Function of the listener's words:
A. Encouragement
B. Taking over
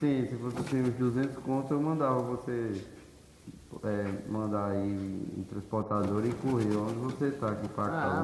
B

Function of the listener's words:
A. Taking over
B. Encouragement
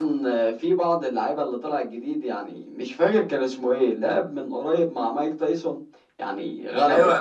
A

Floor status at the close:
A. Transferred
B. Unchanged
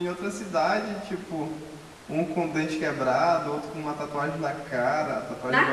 B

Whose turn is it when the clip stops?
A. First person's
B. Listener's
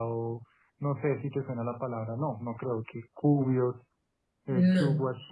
A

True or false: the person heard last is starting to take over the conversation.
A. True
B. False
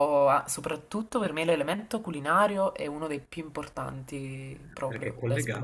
A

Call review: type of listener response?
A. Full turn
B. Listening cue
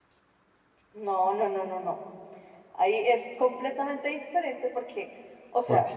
B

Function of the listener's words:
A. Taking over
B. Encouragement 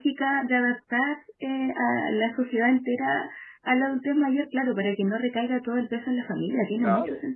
A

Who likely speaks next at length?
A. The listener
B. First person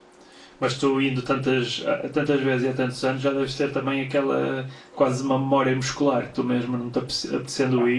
B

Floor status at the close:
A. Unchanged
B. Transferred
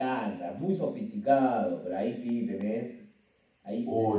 A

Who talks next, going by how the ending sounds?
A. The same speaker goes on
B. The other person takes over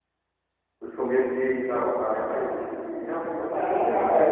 B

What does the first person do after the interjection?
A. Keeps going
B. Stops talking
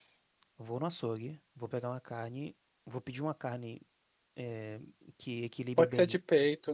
B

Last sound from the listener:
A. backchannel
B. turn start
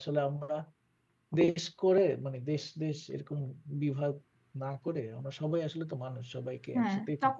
B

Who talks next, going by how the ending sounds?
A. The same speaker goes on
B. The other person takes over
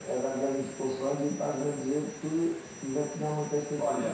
B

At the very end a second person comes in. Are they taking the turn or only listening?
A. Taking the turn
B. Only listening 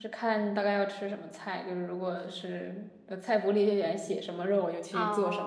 A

